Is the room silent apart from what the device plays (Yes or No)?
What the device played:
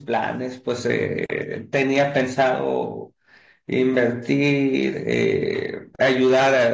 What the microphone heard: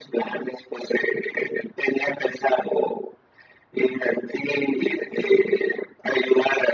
Yes